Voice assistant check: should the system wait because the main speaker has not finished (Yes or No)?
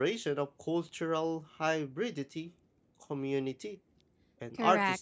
No